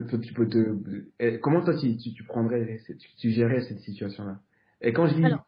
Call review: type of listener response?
listening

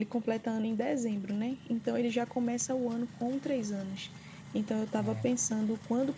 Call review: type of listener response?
listening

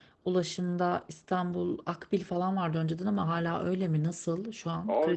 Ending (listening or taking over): taking over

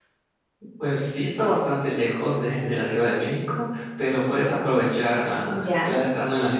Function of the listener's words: listening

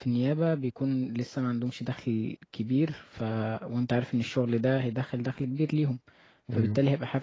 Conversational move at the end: listening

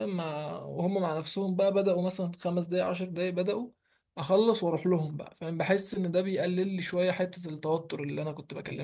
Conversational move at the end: taking over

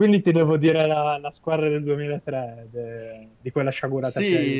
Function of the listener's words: taking over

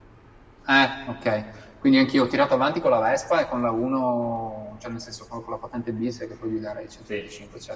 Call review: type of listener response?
listening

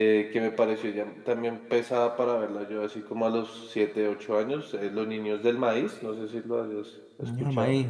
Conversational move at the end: taking over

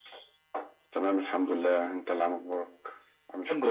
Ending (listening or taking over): taking over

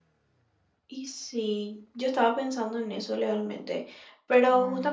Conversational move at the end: listening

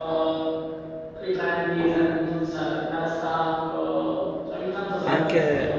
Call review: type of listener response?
taking over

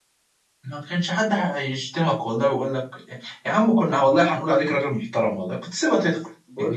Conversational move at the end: taking over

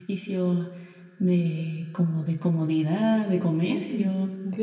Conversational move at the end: taking over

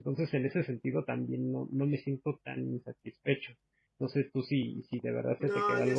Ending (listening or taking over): taking over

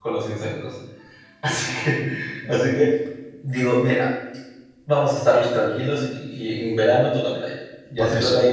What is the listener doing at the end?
listening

